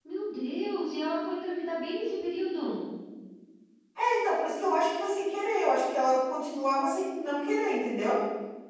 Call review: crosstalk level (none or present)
none